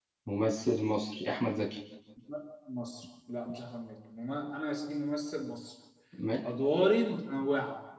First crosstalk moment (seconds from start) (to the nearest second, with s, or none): none